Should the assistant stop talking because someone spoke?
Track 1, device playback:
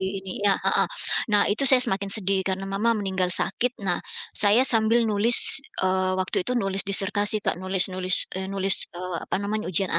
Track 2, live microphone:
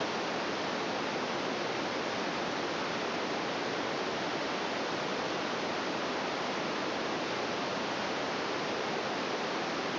No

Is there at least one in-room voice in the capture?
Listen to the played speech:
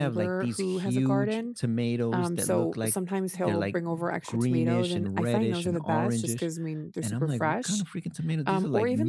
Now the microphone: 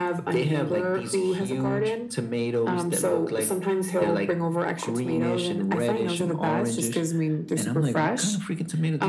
No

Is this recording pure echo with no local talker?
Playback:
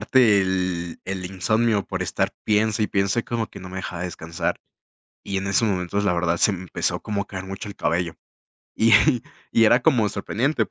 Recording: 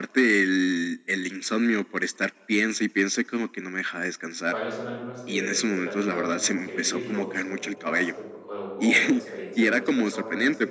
No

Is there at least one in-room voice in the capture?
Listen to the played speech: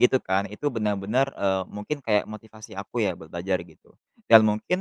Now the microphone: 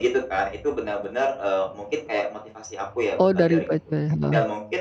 Yes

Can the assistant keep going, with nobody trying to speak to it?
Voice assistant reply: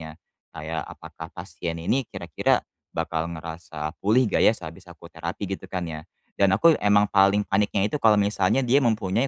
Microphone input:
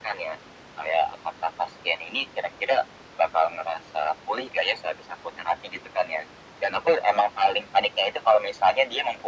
Yes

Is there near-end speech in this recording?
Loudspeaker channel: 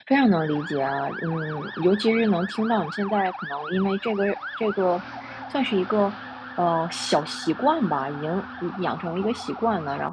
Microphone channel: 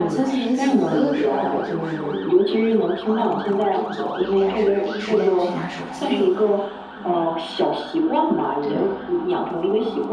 Yes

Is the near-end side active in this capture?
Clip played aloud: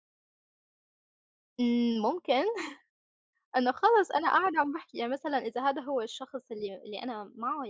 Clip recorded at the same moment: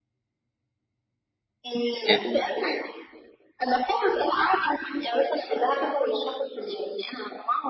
Yes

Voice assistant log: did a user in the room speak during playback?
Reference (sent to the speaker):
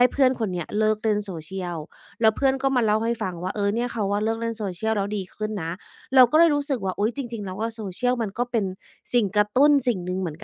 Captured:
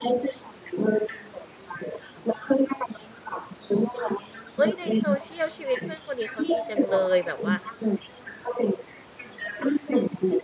Yes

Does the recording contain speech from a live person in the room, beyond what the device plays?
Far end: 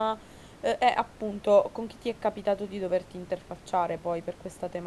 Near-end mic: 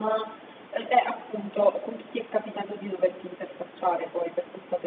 No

